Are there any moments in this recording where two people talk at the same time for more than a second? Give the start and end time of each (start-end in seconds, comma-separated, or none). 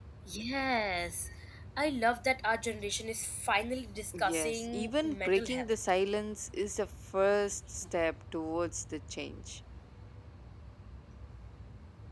4.2-5.8